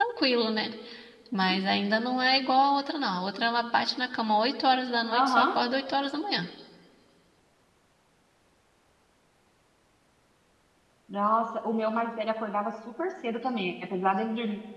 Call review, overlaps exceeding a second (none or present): none